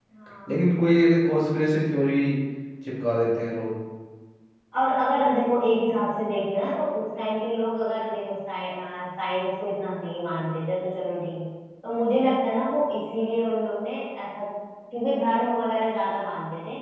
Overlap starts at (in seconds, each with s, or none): none